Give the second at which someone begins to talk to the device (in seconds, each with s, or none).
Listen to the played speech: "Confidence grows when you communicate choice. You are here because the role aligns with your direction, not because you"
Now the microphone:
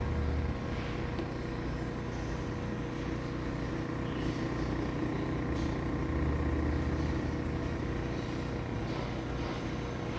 none